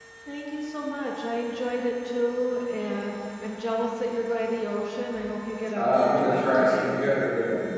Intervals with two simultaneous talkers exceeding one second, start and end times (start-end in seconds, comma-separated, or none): 5.7-7.0